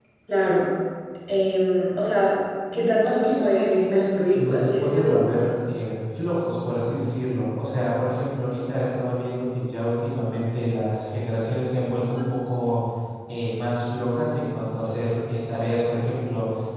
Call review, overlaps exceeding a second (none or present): present